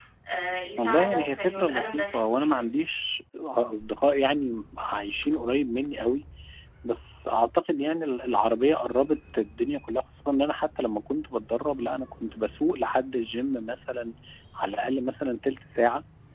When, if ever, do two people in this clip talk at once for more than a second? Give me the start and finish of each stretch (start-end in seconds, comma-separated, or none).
0.8-2.6